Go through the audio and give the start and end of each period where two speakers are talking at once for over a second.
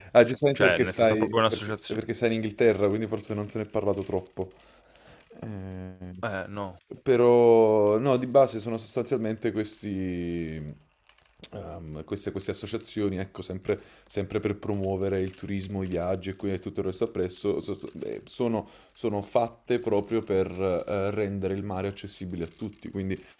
0.6-2.0

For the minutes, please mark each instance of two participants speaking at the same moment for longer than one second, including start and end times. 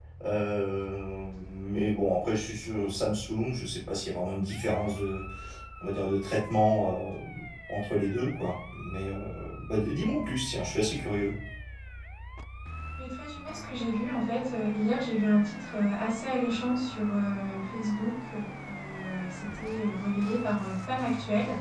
none

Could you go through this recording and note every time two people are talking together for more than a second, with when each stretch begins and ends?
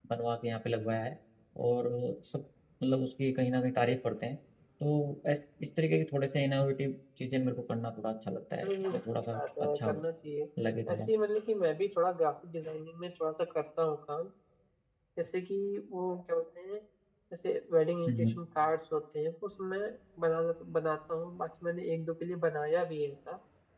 8.6-10.0

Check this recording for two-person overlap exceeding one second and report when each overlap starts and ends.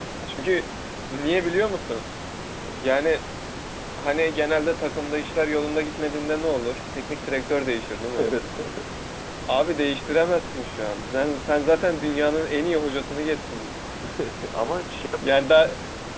none

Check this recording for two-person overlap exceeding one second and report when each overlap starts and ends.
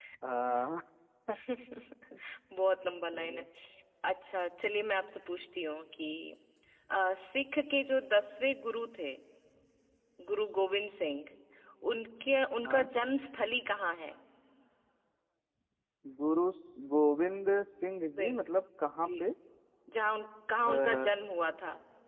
none

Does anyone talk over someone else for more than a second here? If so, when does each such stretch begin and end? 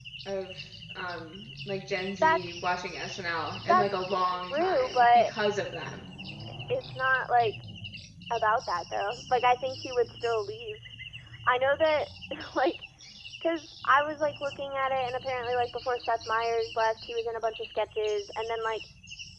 3.7-5.3

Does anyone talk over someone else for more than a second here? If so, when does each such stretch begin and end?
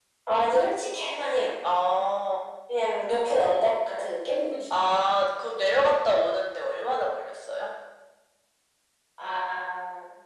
none

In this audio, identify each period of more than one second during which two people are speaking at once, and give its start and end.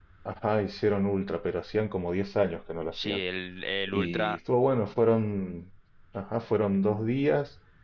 none

